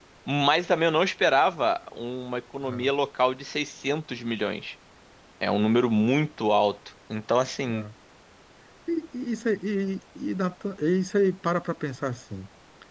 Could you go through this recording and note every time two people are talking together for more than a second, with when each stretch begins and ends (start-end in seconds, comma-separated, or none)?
none